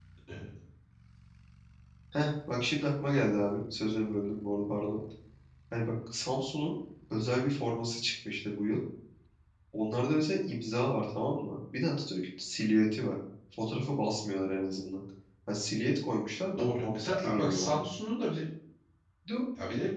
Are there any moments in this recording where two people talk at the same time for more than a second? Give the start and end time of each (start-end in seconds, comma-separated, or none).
16.6-17.8